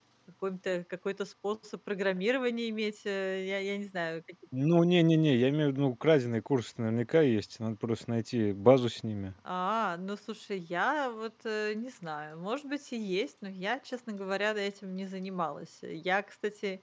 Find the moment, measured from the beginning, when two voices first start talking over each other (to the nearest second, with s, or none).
none